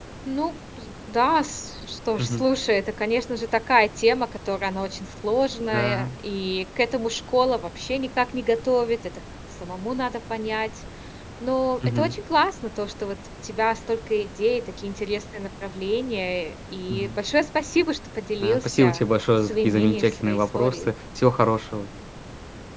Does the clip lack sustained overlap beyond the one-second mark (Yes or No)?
No